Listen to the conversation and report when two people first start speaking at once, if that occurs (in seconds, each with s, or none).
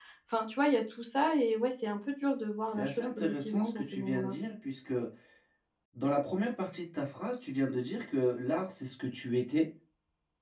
2.6 s